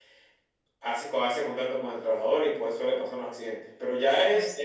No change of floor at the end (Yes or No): Yes